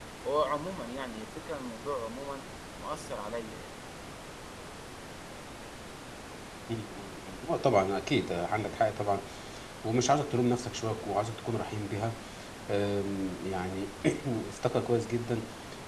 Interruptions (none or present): none